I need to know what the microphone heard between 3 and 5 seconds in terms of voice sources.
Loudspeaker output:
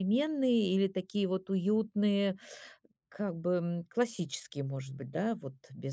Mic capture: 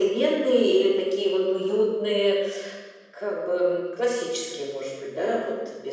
echo only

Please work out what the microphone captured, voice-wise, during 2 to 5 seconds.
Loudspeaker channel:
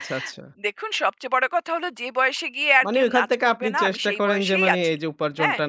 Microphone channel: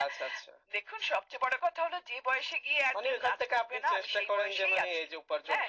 echo only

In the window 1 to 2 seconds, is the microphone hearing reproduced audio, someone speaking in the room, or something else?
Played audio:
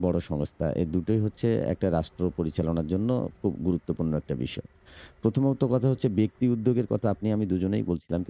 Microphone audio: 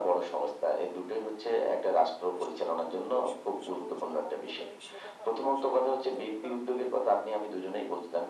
echo only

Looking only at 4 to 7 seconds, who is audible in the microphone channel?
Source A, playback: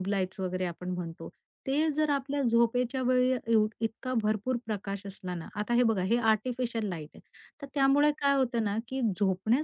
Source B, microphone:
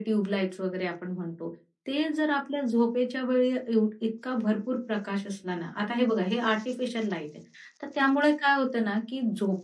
echo only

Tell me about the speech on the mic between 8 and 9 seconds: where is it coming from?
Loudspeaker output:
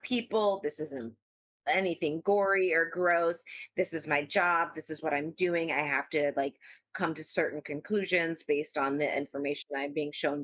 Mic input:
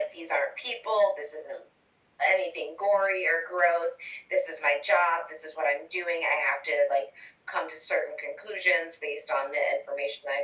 echo only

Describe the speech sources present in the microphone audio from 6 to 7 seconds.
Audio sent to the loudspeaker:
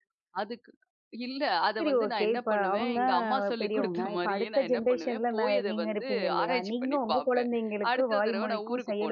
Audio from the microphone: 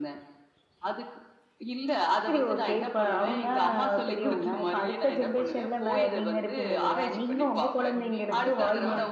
echo only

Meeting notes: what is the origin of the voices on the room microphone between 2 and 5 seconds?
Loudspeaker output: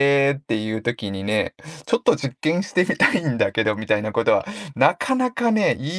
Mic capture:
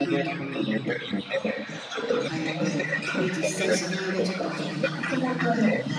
both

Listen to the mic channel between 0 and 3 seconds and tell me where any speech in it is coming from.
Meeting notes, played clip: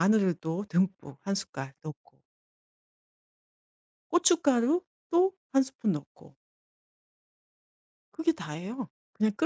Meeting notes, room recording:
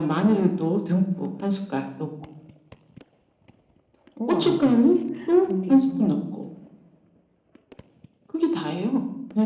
echo only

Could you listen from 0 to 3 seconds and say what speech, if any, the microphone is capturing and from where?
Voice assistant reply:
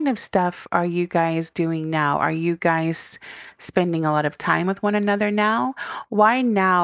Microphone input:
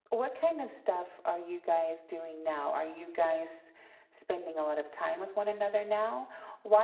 echo only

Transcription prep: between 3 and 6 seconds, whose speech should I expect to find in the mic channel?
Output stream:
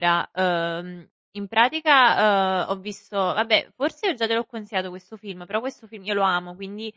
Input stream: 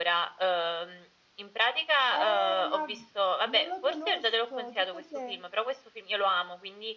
both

